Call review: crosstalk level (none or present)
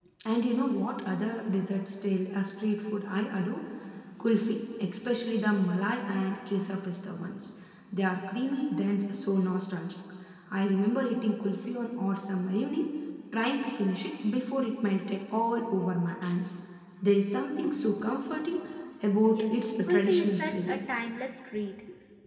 present